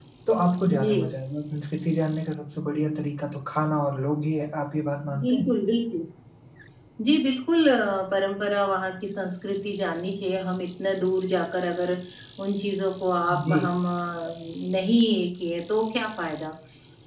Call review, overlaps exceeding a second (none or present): none